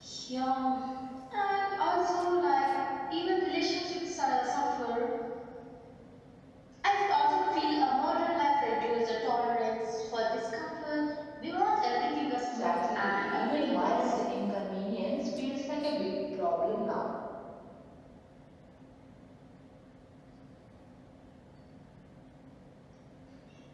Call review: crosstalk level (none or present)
present